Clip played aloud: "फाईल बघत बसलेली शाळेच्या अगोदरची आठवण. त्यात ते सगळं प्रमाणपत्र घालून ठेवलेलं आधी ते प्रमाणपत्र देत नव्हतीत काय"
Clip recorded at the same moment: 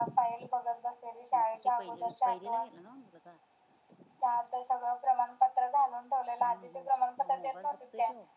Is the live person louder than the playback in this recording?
No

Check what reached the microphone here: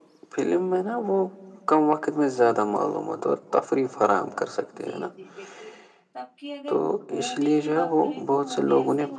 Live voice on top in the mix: No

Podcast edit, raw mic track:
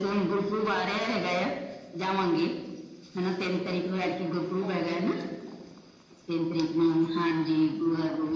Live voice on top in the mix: No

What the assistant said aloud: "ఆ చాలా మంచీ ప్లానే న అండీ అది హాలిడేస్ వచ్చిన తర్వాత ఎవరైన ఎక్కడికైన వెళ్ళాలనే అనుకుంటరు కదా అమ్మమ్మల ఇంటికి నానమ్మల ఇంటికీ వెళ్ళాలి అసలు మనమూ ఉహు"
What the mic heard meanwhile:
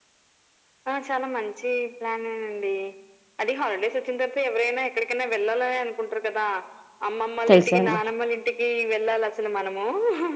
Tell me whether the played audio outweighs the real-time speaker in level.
No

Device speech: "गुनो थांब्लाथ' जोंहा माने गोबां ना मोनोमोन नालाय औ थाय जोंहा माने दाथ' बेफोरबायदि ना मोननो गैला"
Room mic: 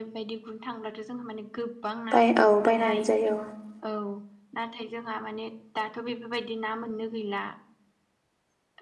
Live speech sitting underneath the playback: No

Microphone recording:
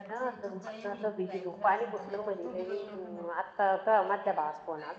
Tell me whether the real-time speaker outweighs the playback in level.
Yes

